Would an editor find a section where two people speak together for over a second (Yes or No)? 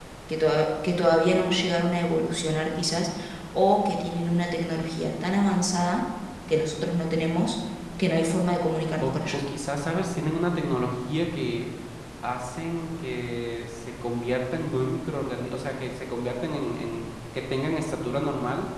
No